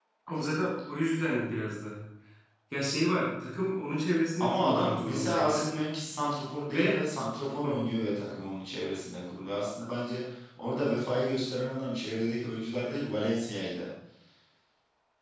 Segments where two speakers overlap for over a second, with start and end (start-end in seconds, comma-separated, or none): 4.4-5.7